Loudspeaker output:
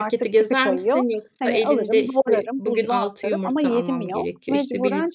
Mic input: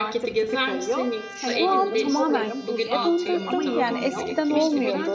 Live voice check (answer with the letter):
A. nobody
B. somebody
B